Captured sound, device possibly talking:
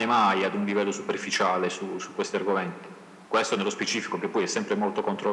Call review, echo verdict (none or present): present